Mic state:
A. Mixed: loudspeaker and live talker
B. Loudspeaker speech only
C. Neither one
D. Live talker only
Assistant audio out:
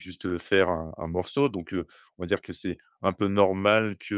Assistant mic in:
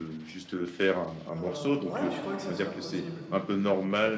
A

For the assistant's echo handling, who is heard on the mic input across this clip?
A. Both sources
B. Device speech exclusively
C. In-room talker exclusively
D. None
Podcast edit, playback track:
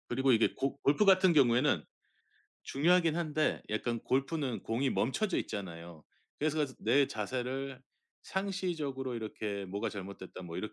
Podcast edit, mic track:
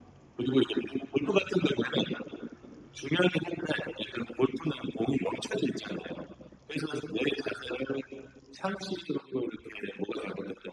B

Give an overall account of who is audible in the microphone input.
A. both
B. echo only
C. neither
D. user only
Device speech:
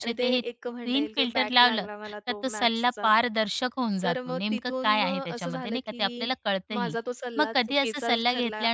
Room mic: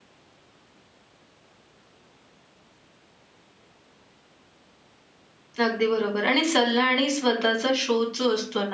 D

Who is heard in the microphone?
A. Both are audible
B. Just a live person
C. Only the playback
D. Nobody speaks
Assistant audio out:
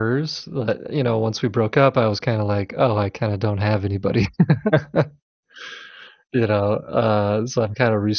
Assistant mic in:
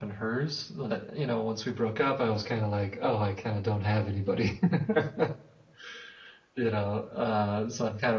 C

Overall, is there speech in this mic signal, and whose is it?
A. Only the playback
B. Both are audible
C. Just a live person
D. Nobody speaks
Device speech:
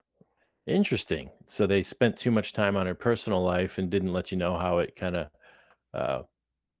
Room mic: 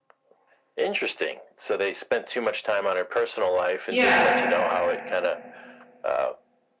B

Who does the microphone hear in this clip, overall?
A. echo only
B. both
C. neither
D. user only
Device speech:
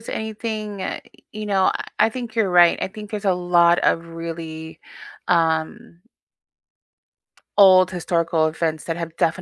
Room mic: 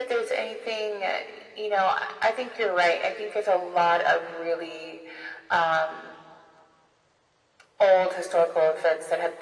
A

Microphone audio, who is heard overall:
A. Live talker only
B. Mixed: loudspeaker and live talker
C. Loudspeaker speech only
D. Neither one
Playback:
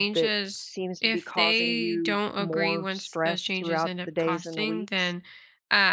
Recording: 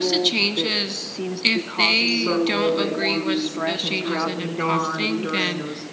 B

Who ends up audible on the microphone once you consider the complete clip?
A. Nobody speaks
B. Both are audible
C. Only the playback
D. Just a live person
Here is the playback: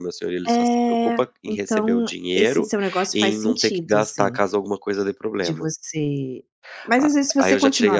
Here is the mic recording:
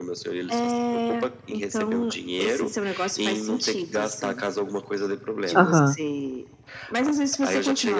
B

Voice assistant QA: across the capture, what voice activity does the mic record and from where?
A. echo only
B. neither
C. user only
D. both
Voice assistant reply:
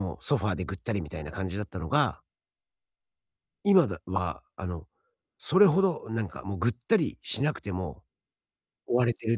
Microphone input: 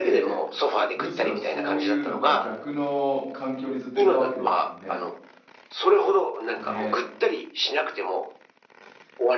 D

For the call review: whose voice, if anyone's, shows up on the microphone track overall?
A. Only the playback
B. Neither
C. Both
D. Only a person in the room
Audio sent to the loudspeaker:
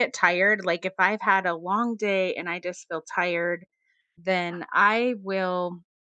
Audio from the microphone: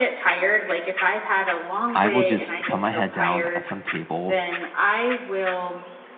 C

